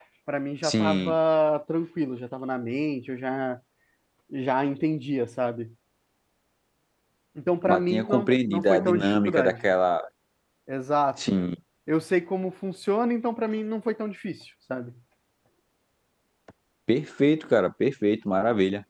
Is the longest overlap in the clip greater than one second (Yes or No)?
Yes